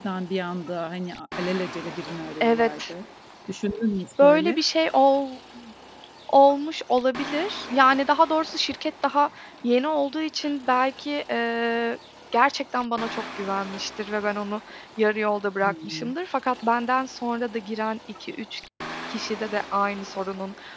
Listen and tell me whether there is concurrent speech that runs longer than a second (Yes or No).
No